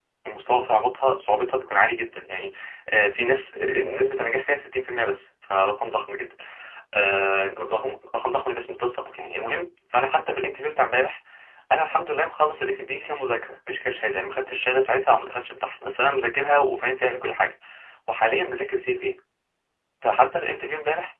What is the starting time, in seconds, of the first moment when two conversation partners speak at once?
none

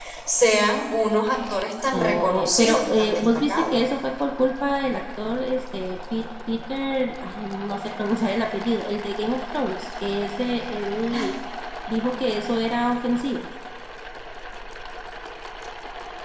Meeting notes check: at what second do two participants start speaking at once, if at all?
1.9 s

